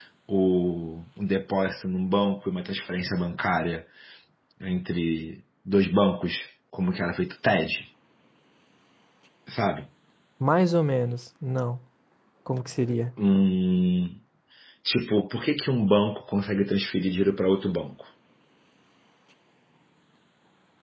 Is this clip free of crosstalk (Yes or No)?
Yes